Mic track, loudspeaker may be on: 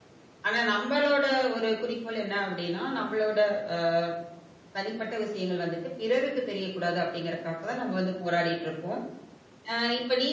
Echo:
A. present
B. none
B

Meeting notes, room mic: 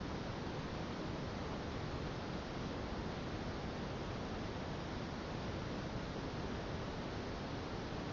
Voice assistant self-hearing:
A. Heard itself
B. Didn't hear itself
B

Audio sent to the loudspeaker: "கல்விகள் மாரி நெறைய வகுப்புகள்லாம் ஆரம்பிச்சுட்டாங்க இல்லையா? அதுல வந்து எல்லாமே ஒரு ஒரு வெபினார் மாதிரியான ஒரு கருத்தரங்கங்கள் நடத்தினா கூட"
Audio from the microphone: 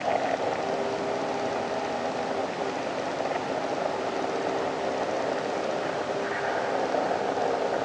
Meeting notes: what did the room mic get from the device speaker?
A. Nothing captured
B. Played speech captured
A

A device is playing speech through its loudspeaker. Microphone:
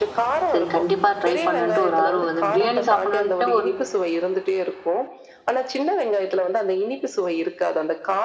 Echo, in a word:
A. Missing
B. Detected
B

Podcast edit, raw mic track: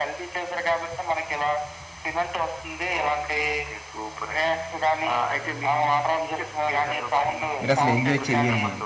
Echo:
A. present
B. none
A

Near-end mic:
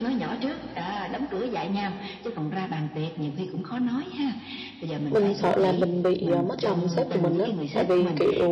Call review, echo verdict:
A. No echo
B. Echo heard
B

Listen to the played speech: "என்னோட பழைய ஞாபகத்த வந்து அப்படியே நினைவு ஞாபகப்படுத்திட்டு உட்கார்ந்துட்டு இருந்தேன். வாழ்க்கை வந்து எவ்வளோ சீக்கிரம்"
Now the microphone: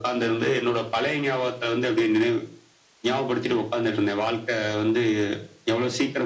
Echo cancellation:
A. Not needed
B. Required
B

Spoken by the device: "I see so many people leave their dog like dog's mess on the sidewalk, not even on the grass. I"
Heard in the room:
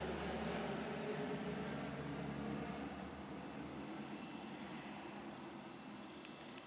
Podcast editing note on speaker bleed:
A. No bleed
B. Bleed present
A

